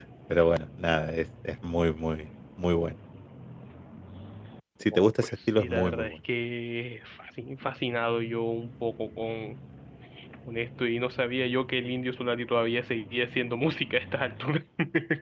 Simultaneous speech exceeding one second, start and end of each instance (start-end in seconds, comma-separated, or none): 4.9-6.2